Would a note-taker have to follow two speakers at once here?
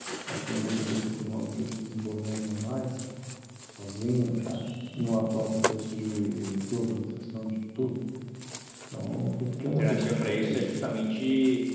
Yes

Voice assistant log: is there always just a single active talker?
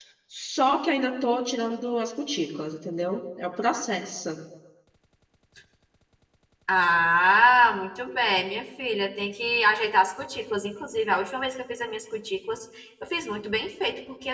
Yes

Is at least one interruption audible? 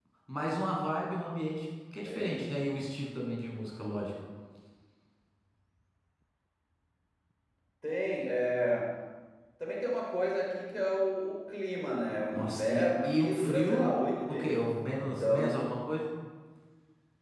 Yes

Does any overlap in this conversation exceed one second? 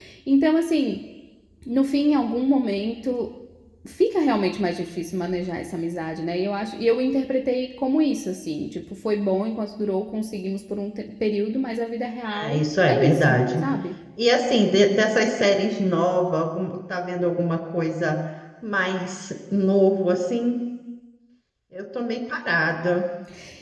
Yes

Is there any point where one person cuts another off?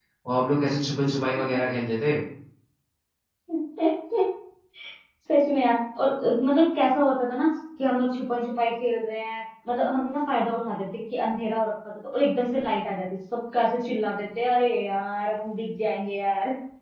No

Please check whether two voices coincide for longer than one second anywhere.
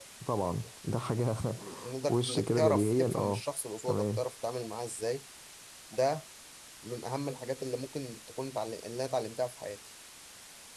Yes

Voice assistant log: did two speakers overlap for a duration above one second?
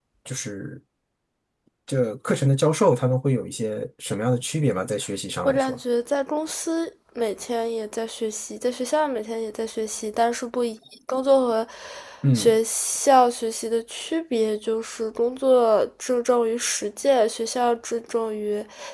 No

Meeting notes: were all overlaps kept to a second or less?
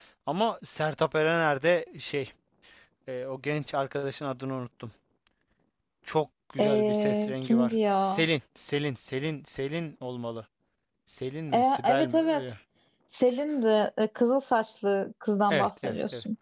No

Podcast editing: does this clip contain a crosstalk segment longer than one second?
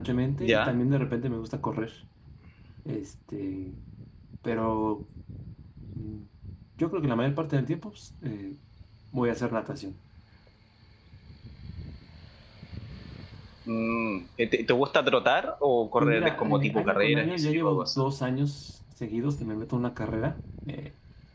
Yes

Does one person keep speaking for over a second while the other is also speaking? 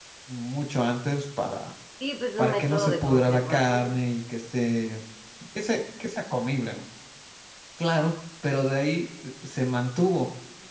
Yes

